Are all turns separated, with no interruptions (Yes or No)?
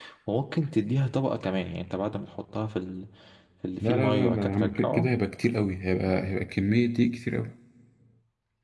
No